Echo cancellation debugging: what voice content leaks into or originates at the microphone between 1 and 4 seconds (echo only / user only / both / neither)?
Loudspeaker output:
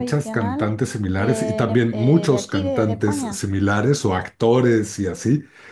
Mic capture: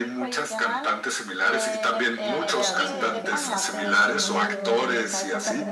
both